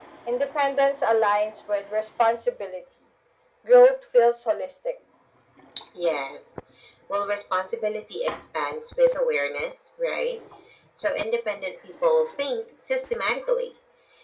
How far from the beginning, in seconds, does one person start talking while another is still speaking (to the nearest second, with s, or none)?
none